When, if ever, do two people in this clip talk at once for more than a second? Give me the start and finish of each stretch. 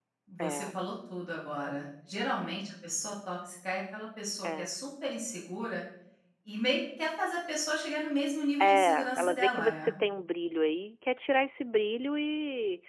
8.6-9.9

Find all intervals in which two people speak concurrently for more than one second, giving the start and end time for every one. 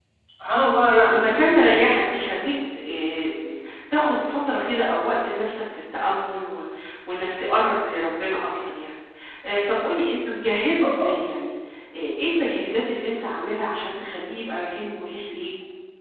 none

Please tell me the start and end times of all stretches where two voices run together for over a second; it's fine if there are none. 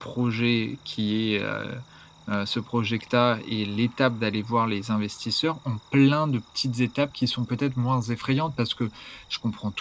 none

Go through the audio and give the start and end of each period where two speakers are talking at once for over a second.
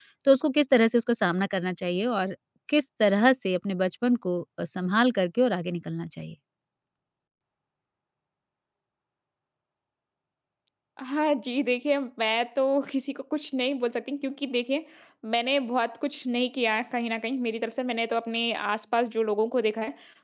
none

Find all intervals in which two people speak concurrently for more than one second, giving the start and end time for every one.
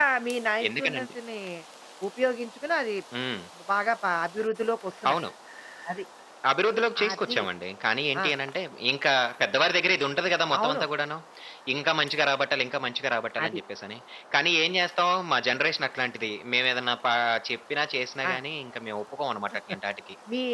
none

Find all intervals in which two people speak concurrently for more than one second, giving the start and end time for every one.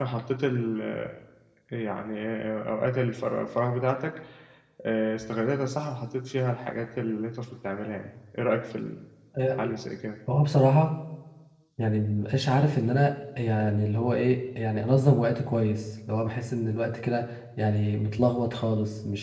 none

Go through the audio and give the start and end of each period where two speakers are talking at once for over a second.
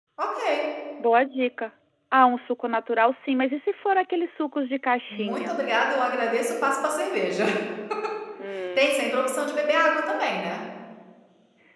none

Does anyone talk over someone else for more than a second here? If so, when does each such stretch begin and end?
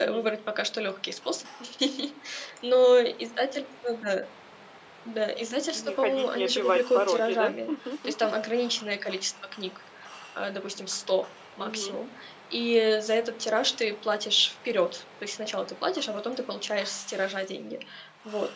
5.7-7.5

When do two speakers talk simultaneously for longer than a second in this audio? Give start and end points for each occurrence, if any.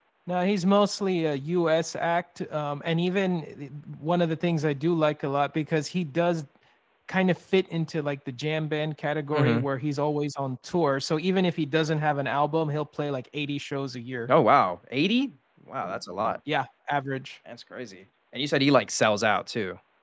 none

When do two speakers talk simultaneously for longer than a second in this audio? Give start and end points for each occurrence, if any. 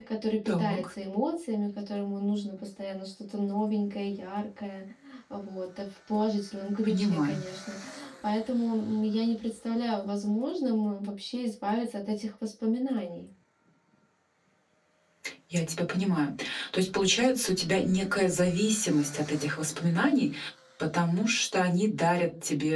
none

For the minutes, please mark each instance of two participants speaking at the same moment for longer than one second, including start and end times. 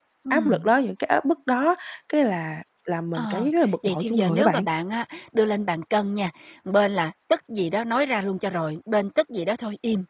3.2-4.6

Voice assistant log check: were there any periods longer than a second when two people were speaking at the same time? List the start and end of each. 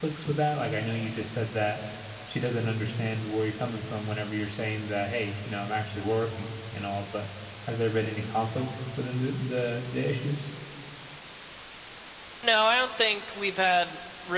none

